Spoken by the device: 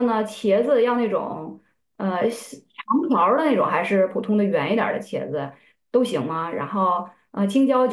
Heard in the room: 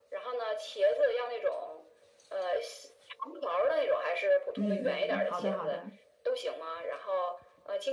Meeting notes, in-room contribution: present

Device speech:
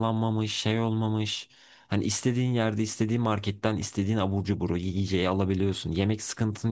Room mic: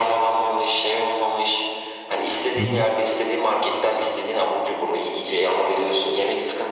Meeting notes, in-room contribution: present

